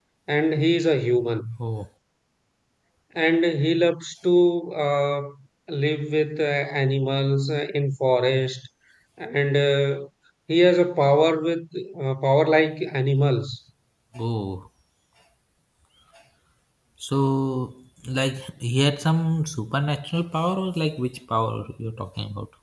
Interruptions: none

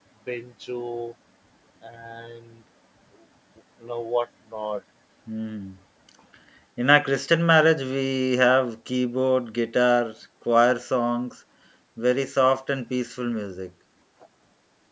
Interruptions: none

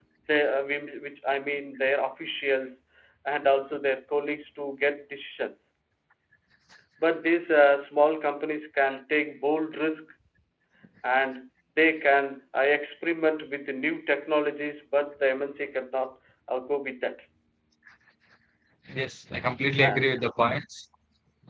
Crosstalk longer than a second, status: none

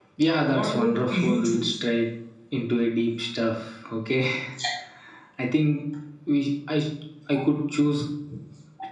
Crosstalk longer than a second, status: present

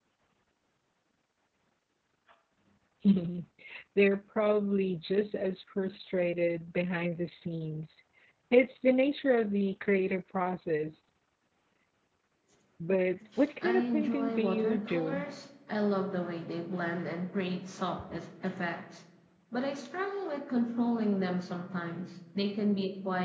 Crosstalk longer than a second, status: present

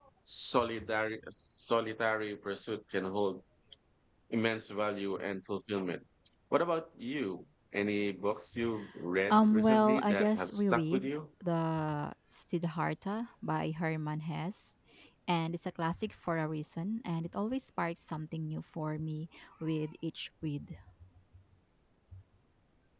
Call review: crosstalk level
present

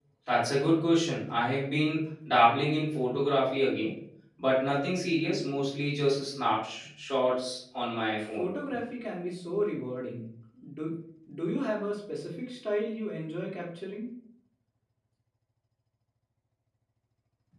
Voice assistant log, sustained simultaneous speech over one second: none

